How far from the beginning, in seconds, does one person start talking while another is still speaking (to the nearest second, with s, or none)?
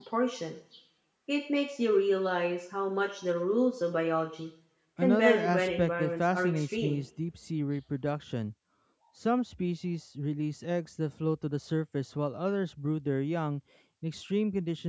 5 s